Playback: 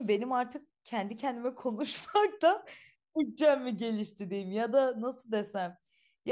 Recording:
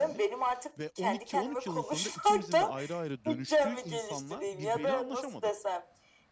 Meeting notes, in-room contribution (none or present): present